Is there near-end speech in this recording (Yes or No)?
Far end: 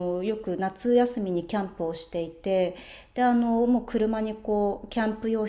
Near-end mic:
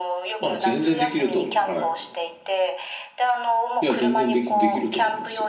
Yes